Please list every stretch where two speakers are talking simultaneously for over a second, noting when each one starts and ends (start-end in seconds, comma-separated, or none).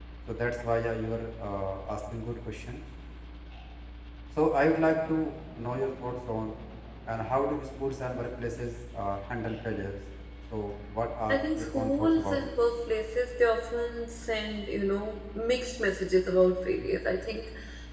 11.3-12.5